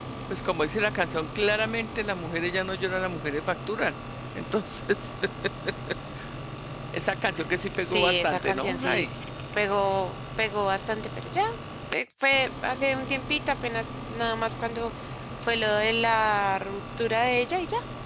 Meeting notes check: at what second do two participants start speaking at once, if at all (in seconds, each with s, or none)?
7.8 s